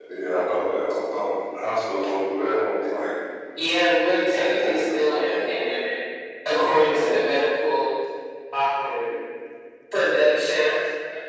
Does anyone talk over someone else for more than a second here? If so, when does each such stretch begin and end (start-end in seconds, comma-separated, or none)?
4.3-5.7